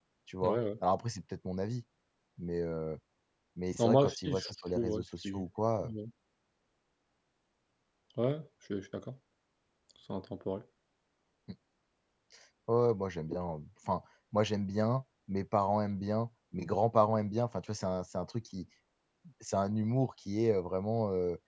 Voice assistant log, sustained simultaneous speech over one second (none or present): present